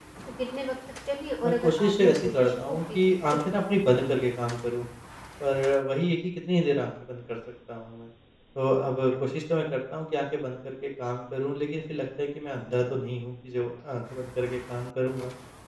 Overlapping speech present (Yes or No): Yes